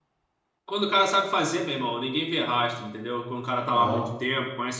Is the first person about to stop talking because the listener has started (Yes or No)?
No